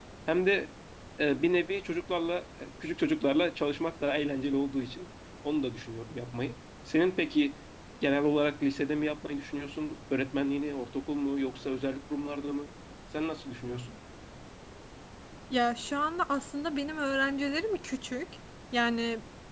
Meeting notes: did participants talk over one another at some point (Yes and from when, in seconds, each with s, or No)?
No